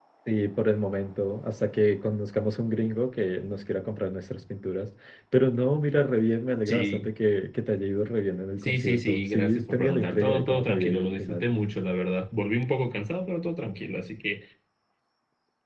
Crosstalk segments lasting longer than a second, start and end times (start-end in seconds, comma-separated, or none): 8.6-11.4